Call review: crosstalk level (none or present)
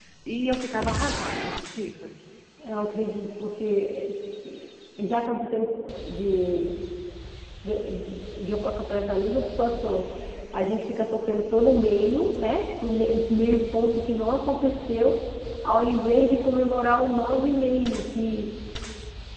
none